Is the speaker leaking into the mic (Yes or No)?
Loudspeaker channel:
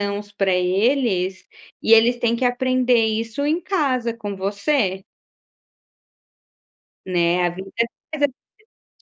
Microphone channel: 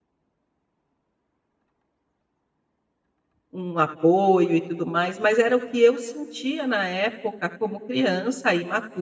No